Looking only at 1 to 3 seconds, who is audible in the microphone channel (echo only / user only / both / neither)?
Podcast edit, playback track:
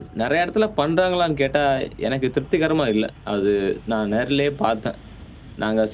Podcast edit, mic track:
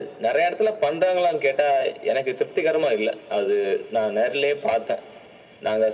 echo only